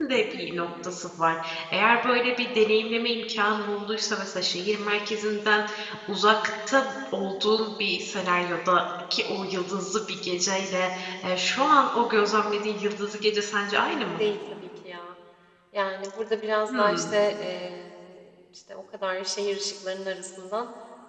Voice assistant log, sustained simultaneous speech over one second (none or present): none